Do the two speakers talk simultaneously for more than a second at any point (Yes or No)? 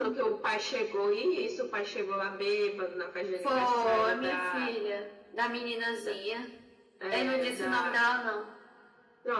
Yes